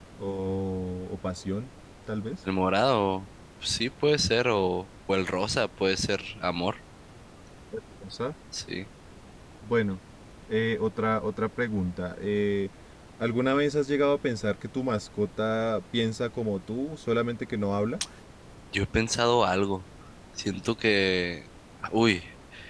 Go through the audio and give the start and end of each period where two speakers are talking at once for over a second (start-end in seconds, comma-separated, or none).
none